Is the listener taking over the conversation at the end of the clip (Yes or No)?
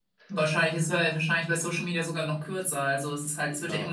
No